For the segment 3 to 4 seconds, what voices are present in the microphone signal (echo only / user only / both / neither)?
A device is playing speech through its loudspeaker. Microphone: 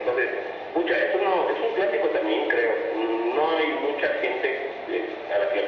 echo only